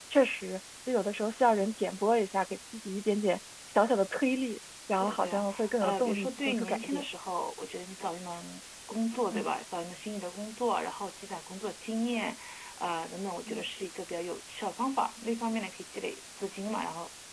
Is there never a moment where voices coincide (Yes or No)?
No